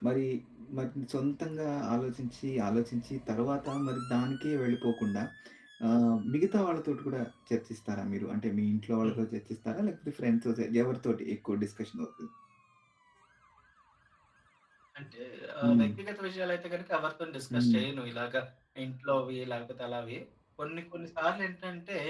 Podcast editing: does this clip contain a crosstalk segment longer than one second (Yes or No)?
No